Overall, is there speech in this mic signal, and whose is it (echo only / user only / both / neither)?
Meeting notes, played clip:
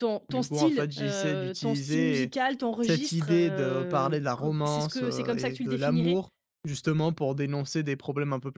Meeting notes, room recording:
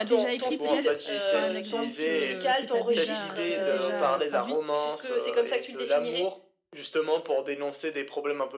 both